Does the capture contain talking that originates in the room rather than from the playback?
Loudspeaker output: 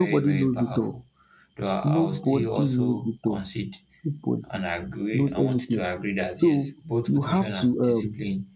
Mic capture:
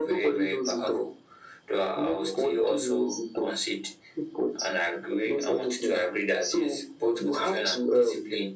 No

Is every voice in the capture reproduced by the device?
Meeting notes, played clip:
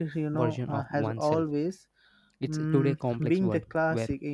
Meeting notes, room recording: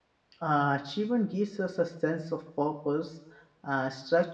No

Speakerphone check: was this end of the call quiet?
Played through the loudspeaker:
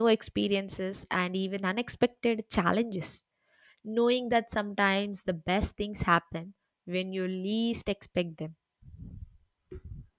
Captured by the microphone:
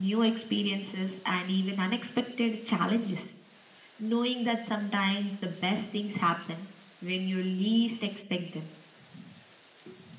Yes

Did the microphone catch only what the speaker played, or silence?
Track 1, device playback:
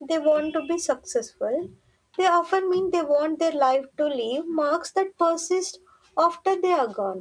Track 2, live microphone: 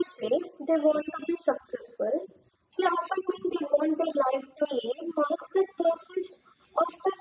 Yes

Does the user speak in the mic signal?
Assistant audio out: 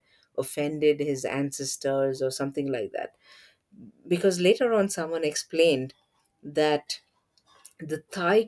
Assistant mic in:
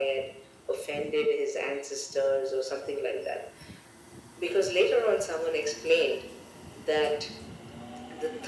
No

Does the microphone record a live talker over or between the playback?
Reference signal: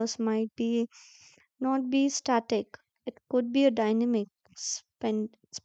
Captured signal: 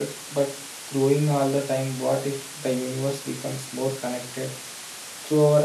Yes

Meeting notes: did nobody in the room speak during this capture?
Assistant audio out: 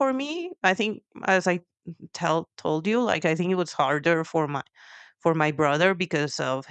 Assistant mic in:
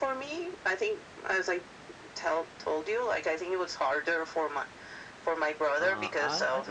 No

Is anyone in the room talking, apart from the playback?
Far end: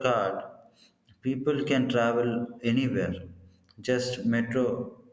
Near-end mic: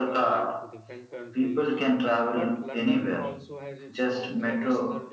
Yes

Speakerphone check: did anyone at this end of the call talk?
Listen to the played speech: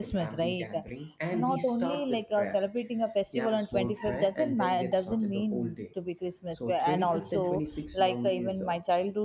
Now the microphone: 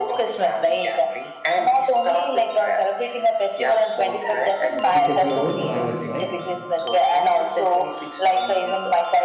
Yes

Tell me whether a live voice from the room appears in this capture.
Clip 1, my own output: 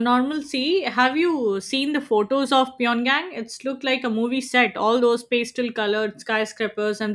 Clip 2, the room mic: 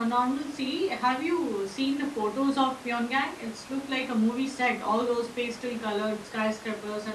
No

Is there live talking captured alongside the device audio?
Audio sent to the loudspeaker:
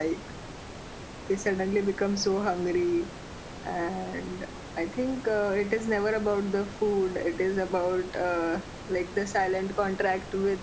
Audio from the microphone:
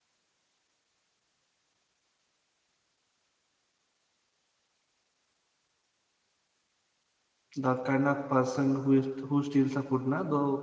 Yes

